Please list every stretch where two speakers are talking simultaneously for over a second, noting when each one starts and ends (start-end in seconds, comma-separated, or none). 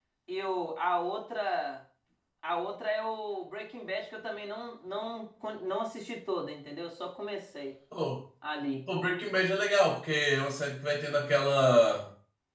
none